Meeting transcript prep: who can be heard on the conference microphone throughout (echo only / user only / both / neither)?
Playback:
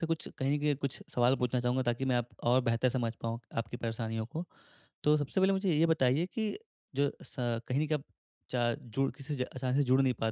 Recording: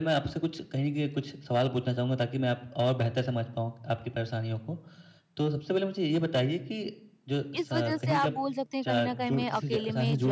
both